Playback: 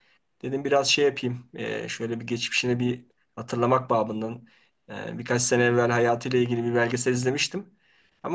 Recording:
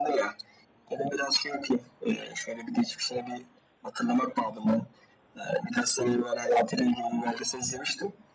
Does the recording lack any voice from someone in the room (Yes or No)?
Yes